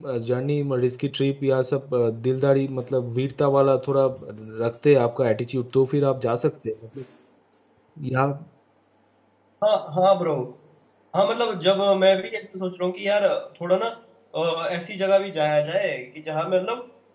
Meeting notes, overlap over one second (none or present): none